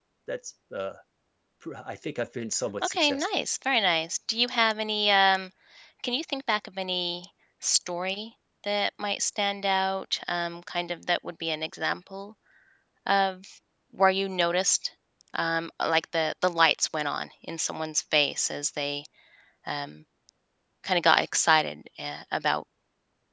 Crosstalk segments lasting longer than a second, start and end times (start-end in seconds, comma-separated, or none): none